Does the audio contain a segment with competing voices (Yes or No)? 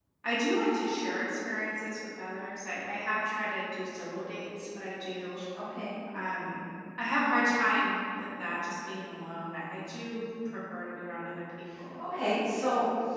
No